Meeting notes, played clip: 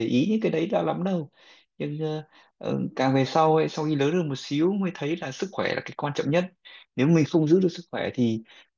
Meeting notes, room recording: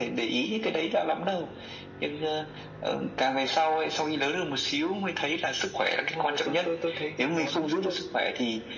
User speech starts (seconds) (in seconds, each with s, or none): 5.9 s